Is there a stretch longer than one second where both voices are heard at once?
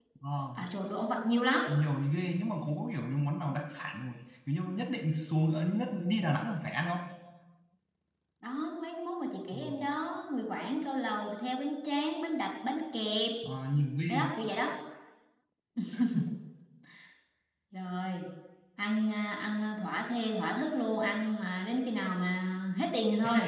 No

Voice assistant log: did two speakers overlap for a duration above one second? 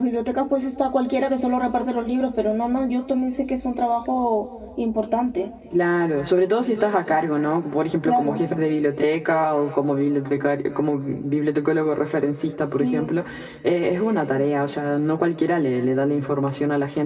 No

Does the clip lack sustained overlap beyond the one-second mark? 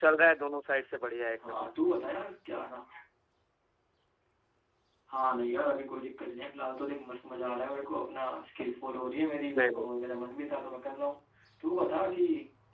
Yes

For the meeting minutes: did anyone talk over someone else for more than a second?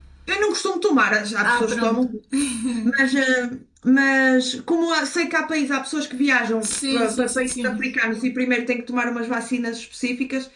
Yes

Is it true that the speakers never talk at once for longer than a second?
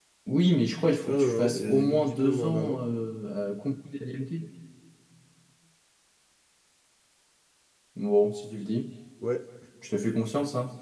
No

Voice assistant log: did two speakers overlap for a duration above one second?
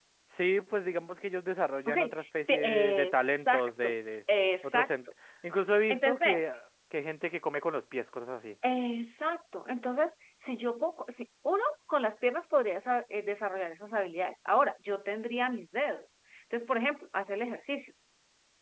Yes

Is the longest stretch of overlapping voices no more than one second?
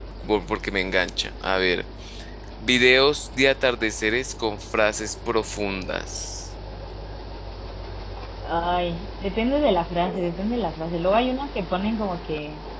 Yes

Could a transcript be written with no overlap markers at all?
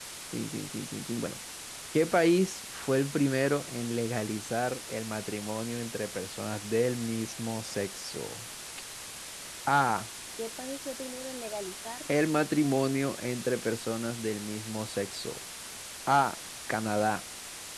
Yes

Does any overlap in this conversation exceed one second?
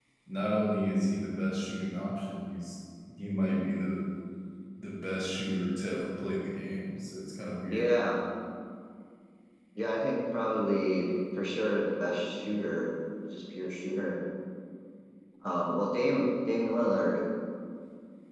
No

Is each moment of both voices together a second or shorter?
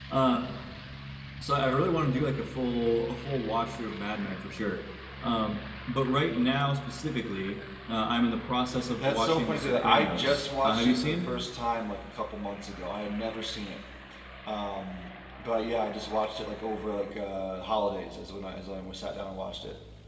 No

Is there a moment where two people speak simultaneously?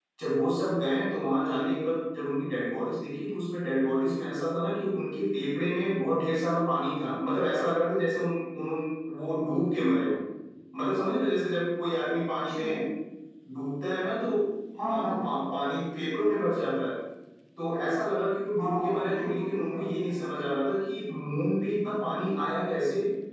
Yes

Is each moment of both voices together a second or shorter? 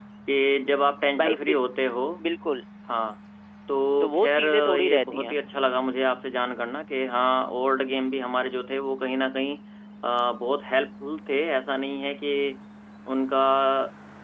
No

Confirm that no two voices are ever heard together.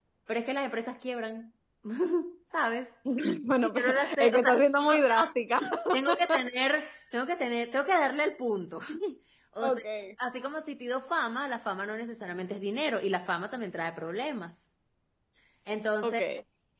No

